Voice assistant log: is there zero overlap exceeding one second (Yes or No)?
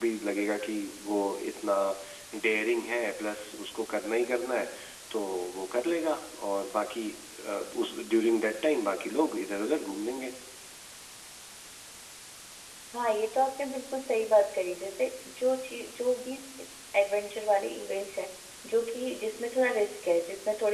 Yes